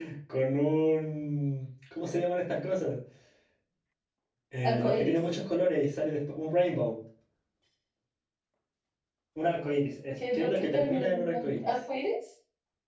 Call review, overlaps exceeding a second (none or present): present